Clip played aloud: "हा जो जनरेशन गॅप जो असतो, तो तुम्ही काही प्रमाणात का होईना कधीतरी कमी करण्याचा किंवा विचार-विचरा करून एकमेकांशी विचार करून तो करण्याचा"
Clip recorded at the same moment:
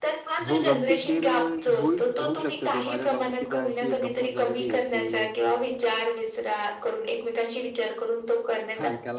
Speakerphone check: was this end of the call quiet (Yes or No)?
No